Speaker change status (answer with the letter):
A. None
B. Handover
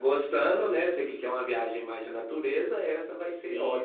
B